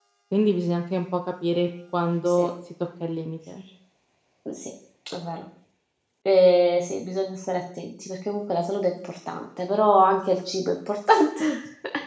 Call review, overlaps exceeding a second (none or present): none